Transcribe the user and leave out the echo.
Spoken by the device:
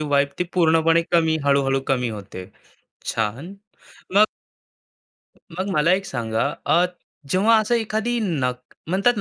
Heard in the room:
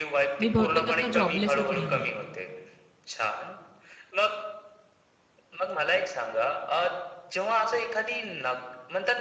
मी बहुतेक आता जॉबलेसच राहणार.

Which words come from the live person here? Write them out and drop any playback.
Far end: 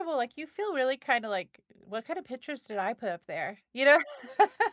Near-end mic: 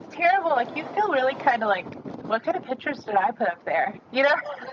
none

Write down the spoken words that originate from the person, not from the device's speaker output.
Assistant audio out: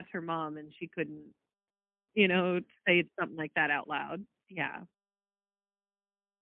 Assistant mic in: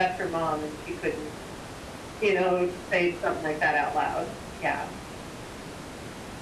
none

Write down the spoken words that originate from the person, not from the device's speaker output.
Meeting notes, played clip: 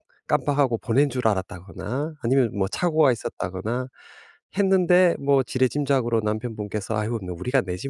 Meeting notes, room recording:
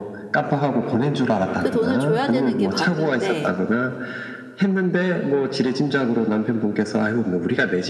그 돈을 줘야 되는 게 맞는데

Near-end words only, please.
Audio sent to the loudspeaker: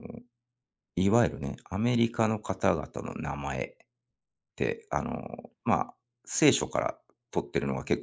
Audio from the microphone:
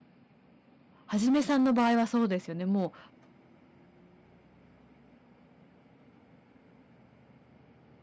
はじめさんの場合はそうですよね。もう

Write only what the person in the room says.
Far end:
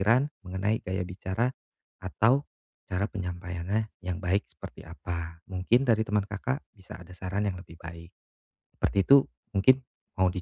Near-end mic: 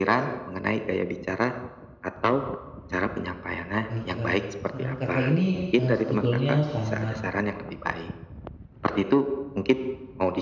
Baik, Kak. Saran Kakak ini, eee, sebetulnya sangat

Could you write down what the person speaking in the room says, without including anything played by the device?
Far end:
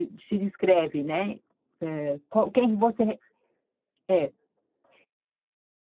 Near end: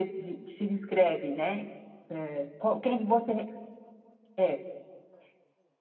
none

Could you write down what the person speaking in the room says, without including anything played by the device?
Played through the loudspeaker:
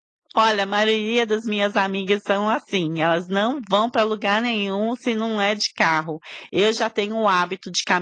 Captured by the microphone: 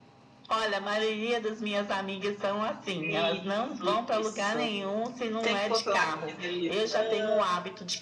Isso, isso. Tem que controlar se fizeram lição,

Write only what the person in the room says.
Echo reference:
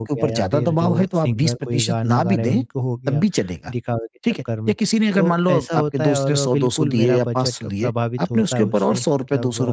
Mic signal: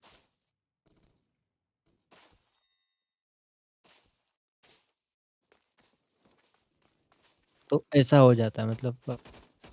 तो ऐसा हो जाता है मतलब

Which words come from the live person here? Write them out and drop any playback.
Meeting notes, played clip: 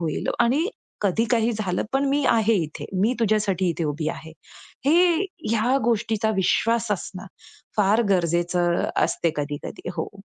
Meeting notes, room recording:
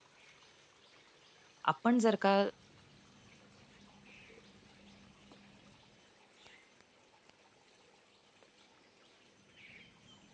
आपण जर का

